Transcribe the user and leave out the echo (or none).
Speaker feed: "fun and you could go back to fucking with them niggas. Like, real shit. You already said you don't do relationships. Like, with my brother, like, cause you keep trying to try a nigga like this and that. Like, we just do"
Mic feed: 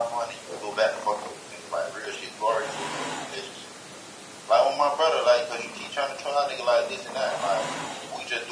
none